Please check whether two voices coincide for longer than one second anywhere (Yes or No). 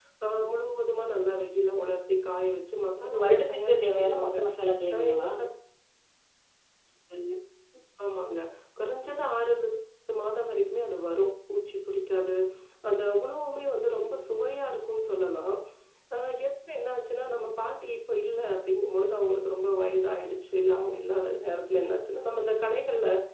Yes